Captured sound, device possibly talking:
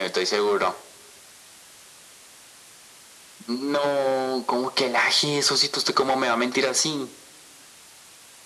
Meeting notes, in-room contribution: none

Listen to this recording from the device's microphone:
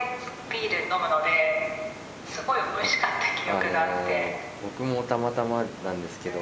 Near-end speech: present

